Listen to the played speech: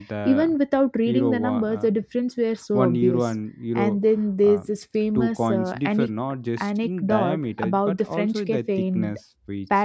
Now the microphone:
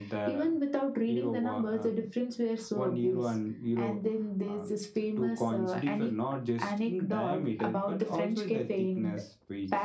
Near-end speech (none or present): none